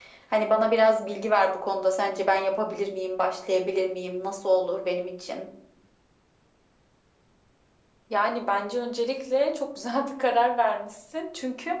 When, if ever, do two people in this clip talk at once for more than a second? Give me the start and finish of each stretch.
none

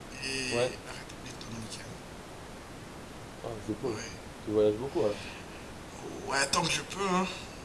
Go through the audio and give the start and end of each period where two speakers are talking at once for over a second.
none

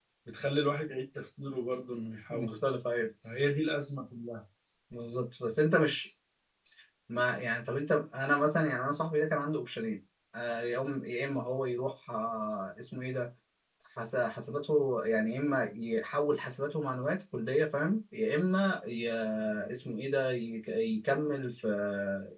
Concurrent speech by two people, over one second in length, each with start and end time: none

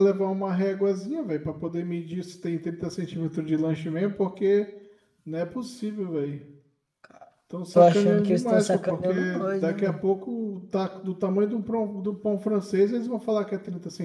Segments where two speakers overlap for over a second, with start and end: 7.8-10.0

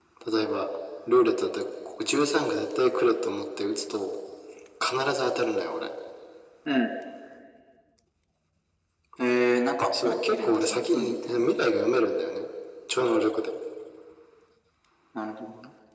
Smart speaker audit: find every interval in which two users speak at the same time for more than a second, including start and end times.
10.0-11.5

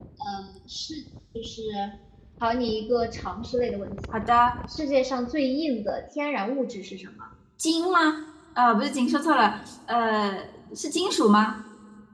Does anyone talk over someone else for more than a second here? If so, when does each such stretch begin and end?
none

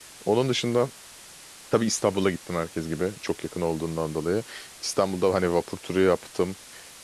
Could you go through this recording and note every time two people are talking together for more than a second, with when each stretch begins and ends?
none

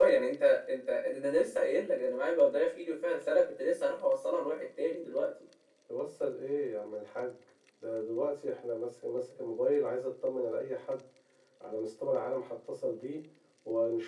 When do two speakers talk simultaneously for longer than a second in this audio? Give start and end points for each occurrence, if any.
none

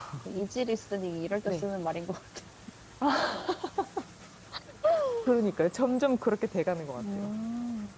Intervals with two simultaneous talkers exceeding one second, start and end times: none

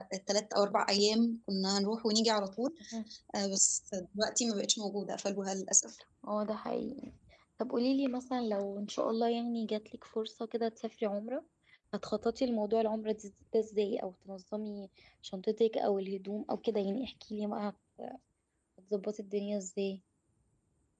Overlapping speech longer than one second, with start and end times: none

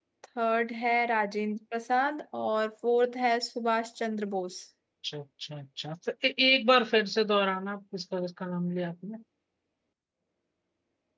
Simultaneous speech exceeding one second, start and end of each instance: none

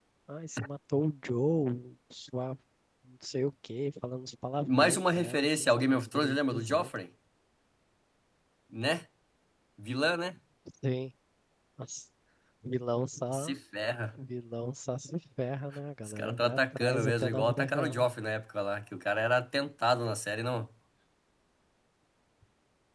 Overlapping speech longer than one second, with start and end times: 4.6-6.9, 16.1-18.1

